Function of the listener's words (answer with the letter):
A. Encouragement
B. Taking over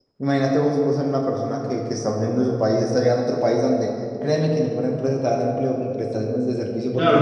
B